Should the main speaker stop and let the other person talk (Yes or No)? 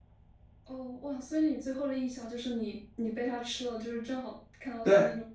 Yes